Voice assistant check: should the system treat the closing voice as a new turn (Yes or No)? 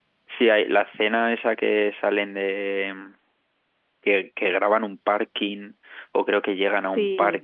No